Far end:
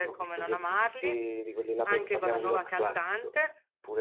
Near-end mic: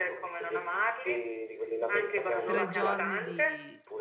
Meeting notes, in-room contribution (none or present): present